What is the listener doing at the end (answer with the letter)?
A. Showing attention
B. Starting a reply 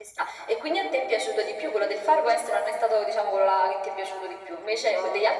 A